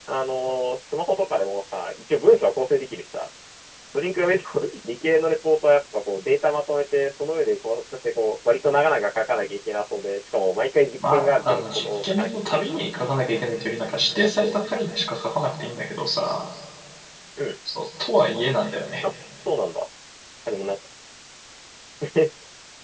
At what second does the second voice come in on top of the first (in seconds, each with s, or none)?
11.1 s